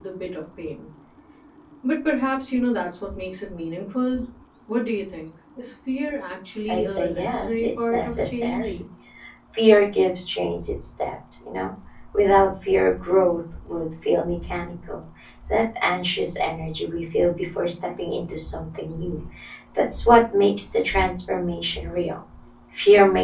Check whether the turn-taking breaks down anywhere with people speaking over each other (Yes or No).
Yes